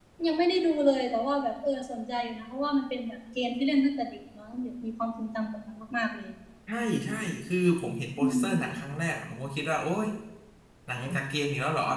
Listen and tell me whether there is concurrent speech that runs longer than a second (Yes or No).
No